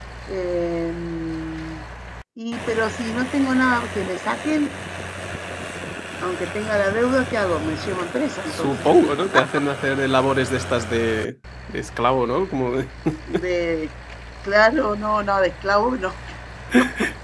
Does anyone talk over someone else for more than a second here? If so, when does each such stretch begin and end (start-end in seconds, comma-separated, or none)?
none